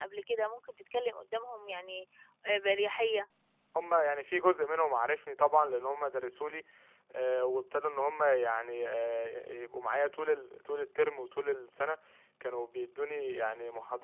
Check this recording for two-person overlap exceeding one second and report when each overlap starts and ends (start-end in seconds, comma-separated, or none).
none